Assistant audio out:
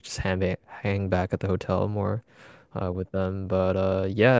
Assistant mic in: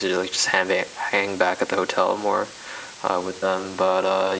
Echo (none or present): present